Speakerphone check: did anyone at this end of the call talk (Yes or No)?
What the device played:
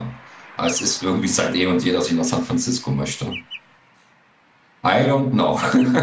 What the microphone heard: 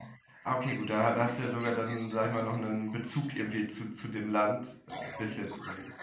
Yes